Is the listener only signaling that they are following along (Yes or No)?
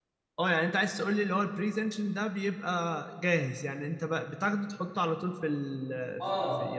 No